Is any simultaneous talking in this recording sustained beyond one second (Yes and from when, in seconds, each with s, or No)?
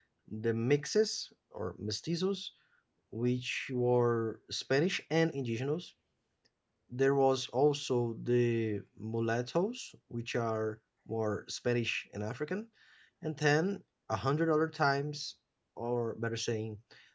No